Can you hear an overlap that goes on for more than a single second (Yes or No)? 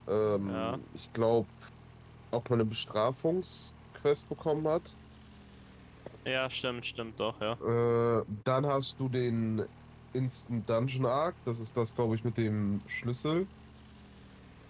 No